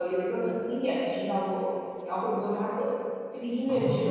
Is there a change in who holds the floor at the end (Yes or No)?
No